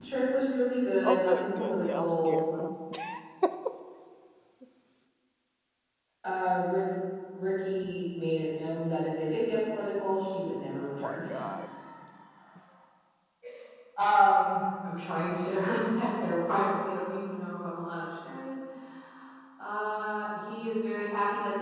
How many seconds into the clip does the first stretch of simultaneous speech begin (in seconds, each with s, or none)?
1.0 s